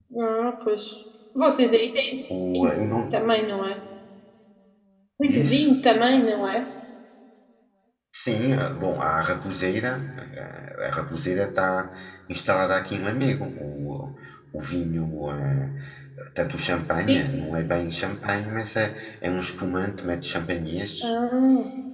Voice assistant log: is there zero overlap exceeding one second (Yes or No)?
Yes